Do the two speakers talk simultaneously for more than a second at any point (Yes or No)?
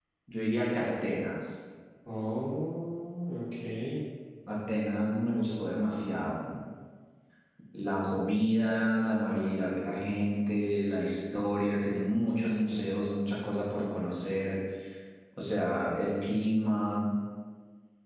No